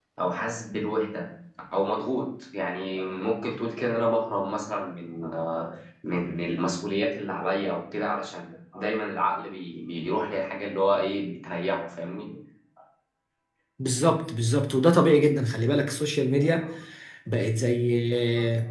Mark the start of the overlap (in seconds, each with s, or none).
none